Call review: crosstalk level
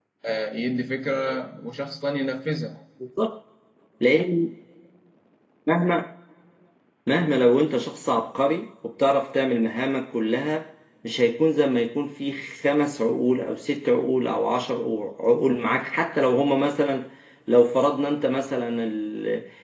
none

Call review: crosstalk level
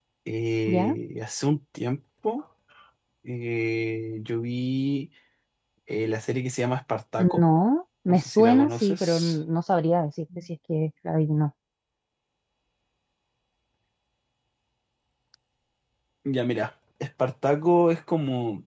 present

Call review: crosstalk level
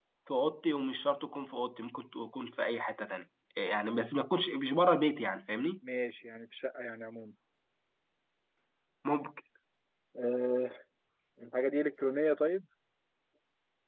none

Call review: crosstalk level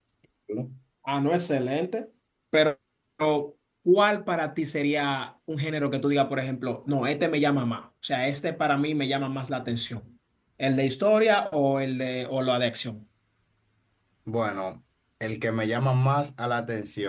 none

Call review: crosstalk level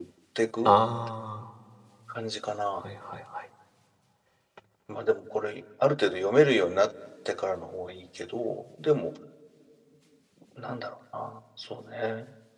none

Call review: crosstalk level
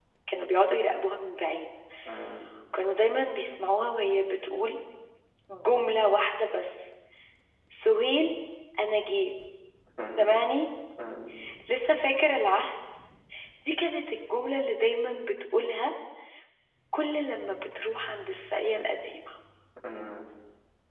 none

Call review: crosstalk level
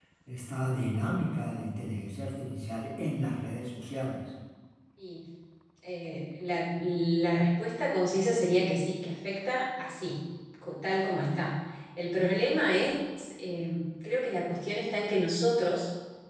none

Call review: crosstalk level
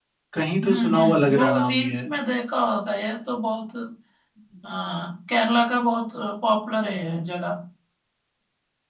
present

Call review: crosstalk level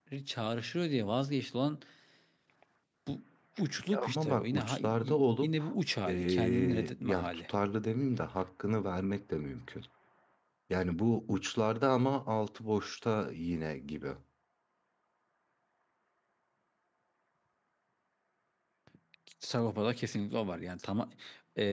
present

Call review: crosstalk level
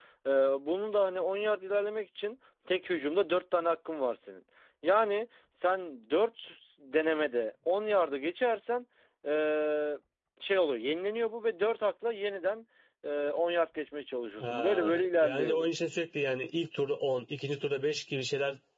present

